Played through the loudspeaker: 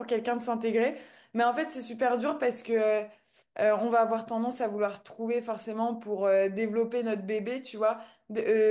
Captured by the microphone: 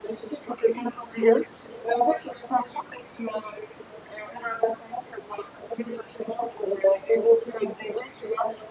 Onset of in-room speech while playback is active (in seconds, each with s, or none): none